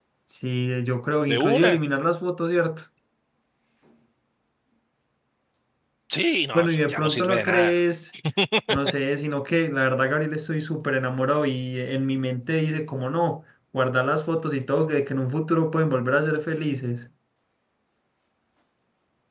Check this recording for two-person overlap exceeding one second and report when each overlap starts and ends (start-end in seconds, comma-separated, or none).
6.5-7.8